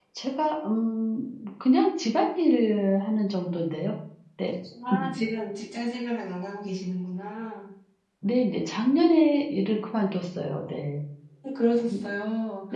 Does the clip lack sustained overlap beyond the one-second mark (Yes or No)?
Yes